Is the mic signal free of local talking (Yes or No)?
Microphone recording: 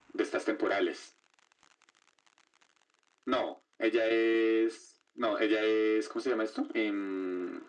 Yes